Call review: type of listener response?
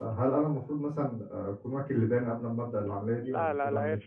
taking over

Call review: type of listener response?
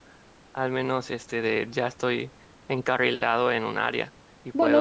taking over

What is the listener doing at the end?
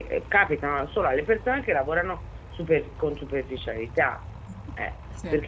listening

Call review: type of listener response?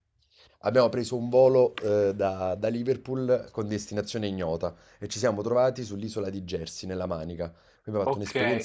taking over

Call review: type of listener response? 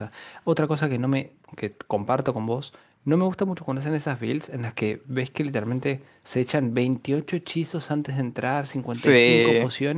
listening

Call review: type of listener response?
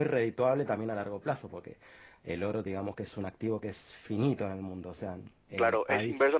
taking over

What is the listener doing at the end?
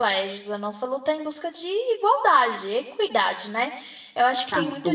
listening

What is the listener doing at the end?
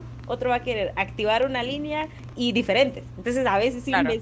listening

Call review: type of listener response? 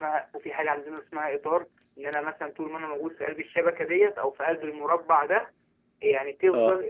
listening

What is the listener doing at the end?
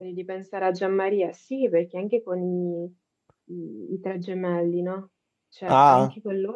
listening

